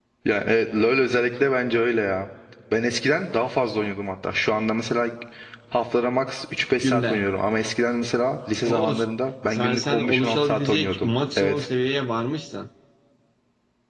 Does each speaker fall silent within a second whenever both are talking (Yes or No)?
No